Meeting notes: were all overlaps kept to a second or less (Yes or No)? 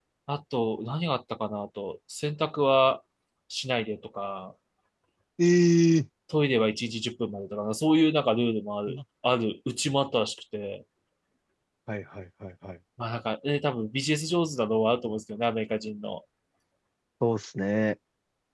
Yes